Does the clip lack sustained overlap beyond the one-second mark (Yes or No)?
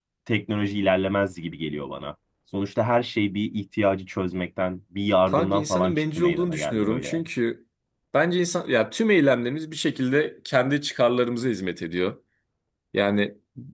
No